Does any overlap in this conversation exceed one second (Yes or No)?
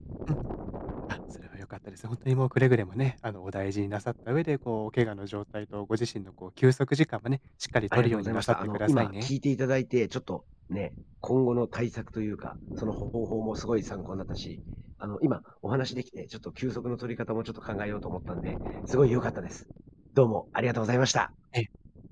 Yes